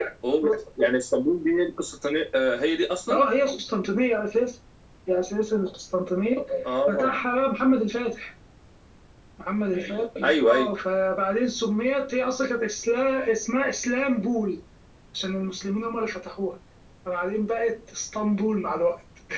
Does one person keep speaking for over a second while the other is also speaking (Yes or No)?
No